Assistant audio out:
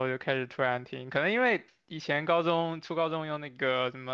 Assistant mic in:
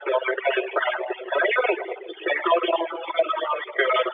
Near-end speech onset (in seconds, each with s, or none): none